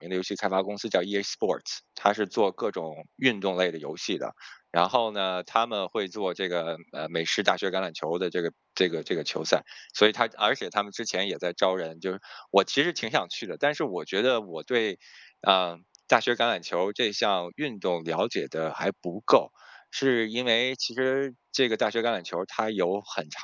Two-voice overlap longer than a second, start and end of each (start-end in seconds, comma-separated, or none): none